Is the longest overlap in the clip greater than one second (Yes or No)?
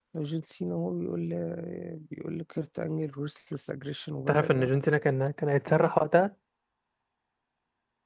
No